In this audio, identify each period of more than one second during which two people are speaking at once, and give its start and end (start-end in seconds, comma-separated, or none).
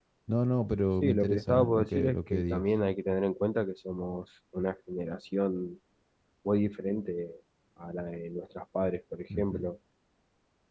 1.0-2.6